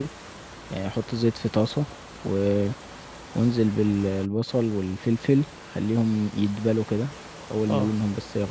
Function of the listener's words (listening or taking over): listening